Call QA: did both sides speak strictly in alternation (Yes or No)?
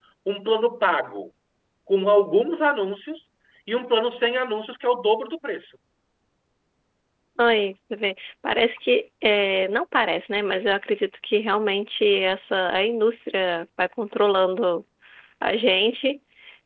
Yes